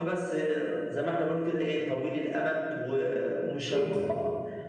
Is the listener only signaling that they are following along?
Yes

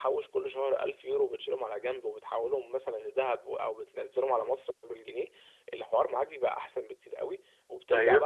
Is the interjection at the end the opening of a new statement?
No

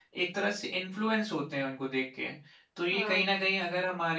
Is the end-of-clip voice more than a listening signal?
No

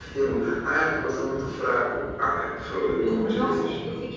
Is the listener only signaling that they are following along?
No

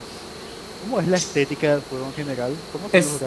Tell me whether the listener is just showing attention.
No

